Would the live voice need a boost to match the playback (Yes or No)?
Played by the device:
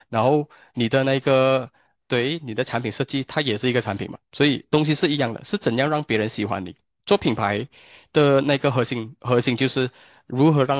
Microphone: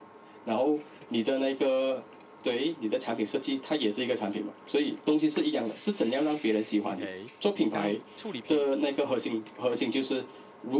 Yes